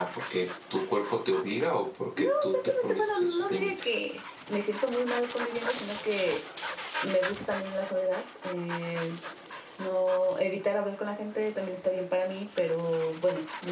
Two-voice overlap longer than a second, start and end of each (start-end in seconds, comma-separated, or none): 2.2-4.0